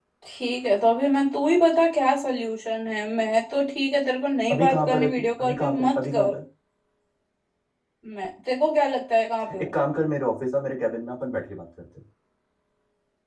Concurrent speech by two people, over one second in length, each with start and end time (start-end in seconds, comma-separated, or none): 4.5-6.3